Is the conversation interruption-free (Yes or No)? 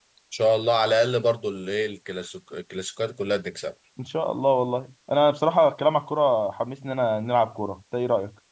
Yes